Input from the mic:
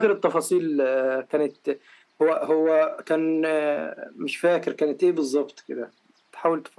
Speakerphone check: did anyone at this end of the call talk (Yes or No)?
No